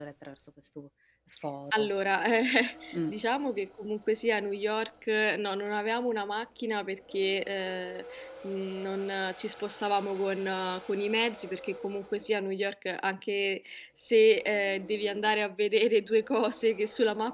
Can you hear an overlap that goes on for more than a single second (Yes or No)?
No